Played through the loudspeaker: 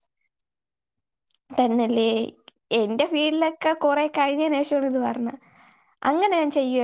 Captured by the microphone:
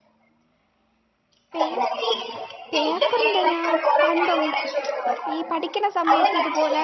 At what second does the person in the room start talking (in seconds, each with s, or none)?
1.5 s